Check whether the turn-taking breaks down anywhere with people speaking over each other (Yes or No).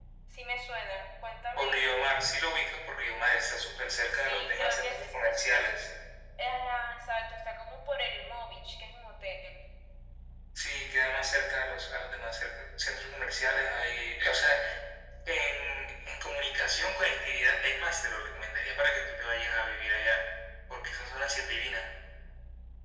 Yes